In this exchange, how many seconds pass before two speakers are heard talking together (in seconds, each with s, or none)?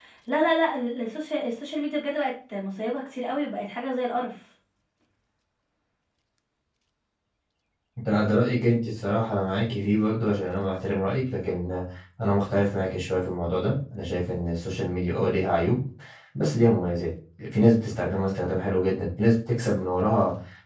none